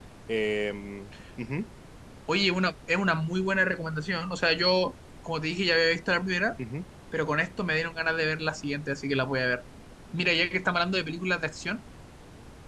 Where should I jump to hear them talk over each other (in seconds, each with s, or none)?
none